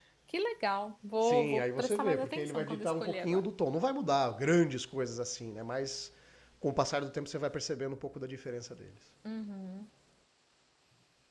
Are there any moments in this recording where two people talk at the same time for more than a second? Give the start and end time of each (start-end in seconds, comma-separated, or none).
1.2-3.4